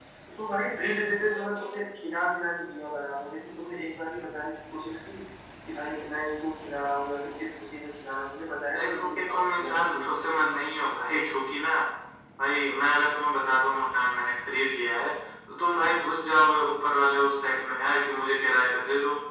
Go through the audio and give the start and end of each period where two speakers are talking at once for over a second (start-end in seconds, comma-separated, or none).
8.8-10.0